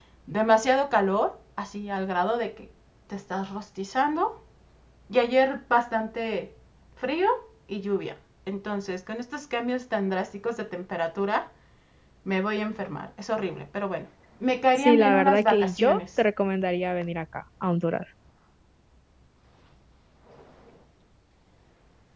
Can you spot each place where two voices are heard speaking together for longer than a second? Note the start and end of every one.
14.8-16.0

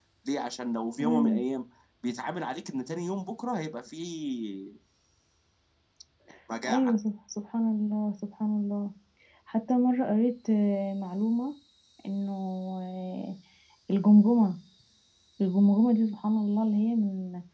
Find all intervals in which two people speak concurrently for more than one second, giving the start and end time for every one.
none

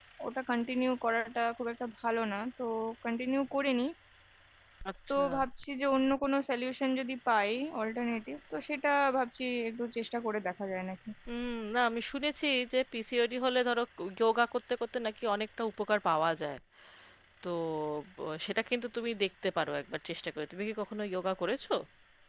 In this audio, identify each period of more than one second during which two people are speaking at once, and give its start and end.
none

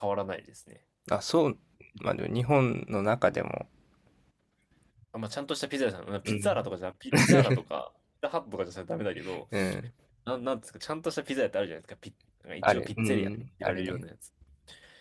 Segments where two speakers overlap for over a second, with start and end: 12.6-14.0

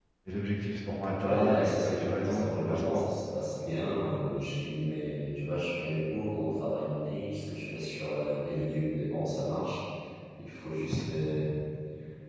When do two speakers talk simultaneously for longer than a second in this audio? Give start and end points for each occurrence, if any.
1.2-3.1

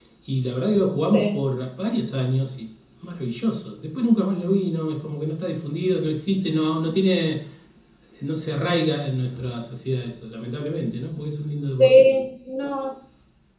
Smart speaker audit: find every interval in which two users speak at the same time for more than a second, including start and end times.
none

